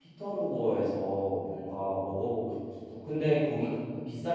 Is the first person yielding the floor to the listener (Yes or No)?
No